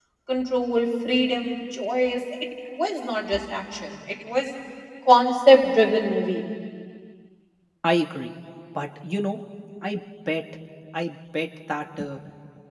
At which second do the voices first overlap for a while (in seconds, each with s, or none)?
none